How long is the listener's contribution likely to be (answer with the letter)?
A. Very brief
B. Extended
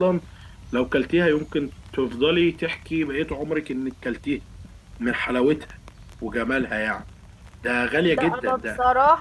B